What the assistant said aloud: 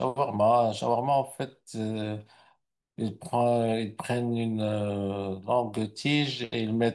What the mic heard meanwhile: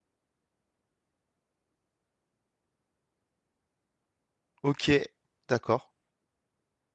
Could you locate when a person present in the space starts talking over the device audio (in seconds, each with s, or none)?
4.6 s